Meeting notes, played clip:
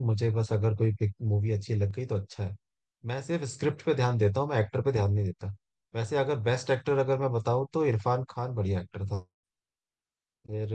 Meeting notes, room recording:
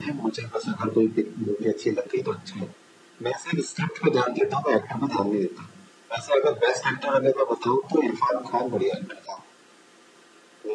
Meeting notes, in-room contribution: none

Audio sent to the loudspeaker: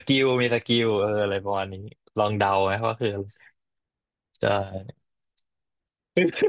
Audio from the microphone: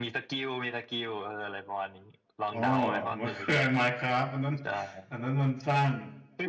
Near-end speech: present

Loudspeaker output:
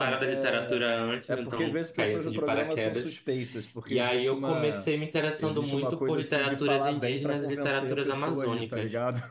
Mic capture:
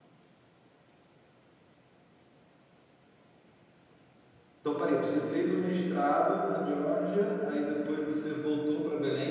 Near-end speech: present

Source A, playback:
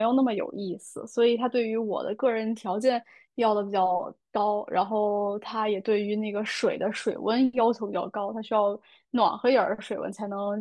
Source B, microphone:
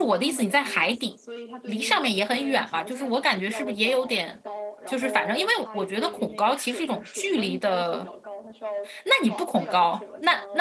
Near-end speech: present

